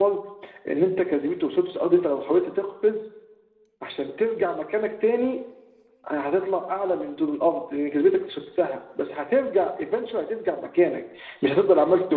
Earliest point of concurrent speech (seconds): none

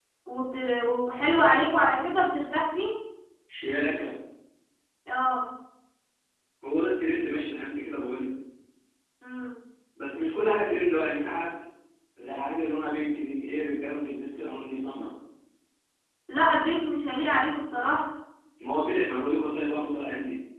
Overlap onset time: none

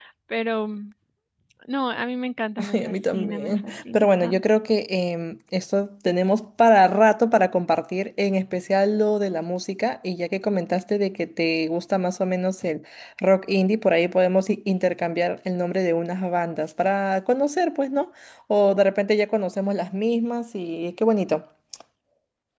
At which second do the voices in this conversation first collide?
2.7 s

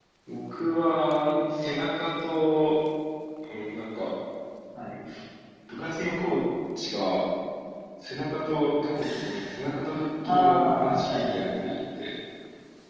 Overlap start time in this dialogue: 10.2 s

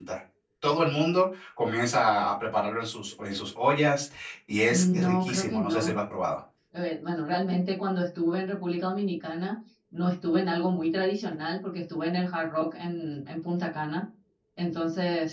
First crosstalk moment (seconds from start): 4.7 s

